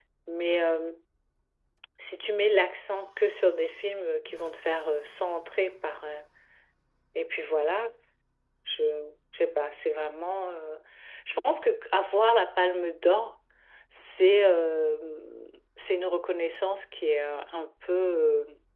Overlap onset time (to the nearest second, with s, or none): none